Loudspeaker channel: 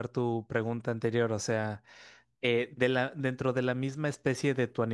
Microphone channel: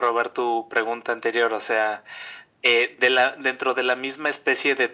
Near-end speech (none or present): none